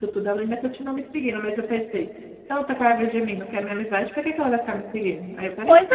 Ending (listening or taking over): taking over